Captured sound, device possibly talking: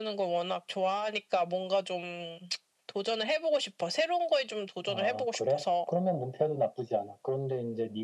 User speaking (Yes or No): No